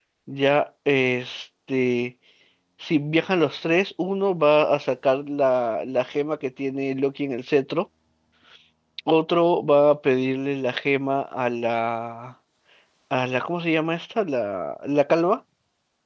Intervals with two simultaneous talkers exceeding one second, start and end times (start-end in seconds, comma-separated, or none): none